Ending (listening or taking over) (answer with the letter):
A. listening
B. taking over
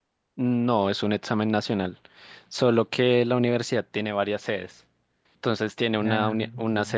A